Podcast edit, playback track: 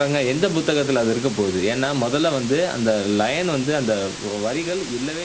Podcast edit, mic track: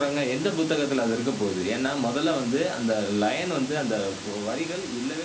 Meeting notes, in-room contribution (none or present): none